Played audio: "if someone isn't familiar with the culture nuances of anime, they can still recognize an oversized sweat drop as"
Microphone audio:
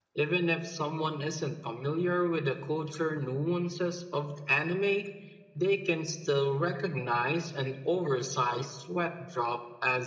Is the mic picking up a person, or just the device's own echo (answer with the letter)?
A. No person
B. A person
A